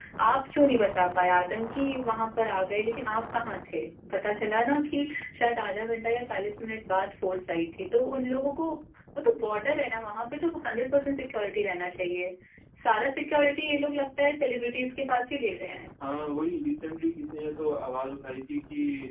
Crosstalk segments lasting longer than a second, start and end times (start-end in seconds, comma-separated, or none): none